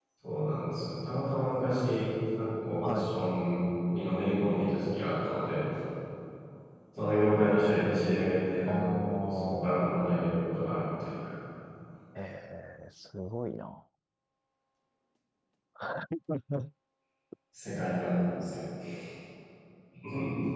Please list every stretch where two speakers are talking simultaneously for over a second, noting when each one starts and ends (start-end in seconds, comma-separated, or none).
8.7-9.9